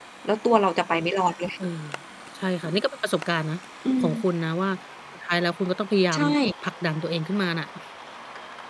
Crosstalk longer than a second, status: none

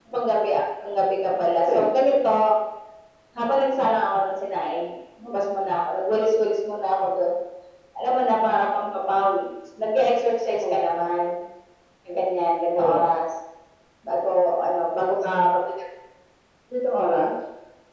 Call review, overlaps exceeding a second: none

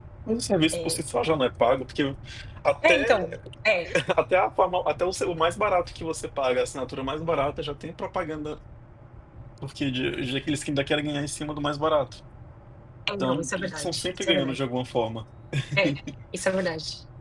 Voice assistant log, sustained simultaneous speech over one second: present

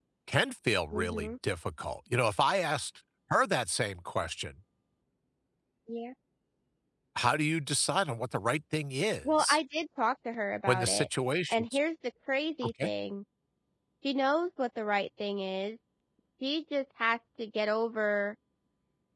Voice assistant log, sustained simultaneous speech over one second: none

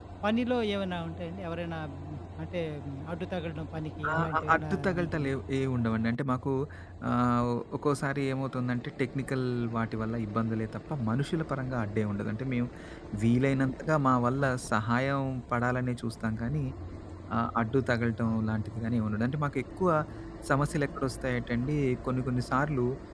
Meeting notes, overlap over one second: present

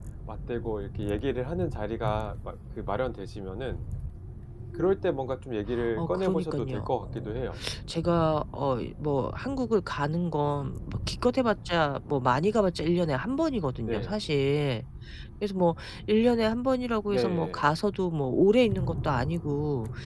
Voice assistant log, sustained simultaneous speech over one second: present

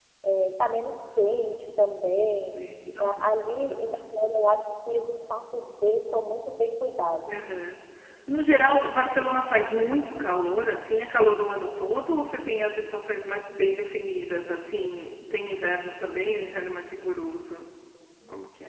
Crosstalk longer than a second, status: none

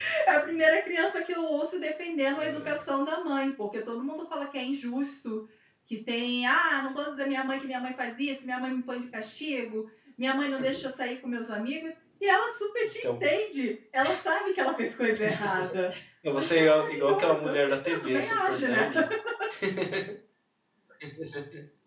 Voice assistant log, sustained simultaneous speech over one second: present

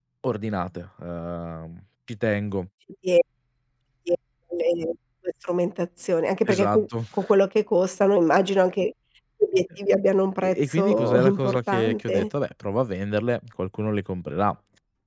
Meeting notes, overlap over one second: present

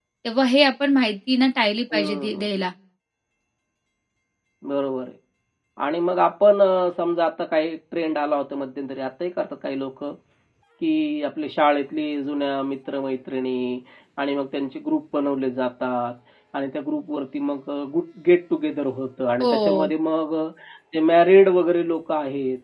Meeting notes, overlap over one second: none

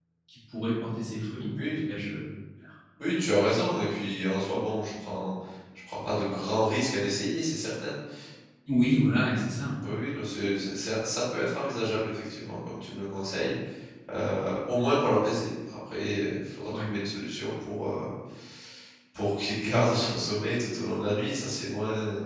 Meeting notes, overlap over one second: none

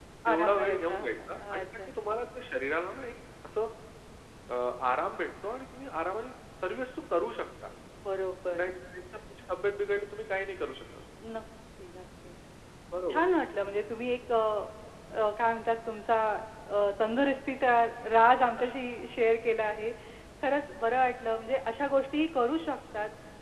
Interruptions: present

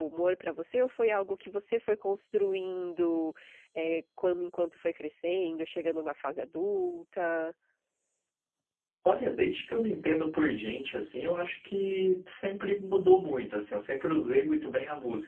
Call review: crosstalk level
none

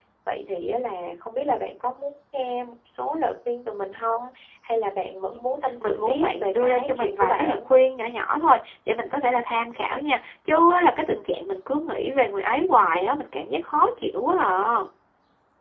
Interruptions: present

